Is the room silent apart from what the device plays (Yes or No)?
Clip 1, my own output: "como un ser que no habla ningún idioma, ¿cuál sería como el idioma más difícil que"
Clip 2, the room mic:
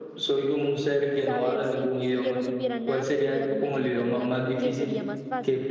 No